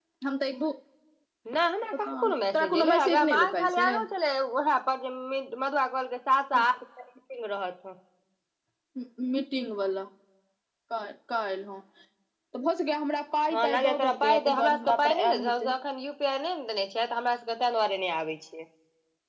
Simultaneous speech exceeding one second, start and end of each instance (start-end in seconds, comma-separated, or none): 2.1-3.9, 13.5-15.7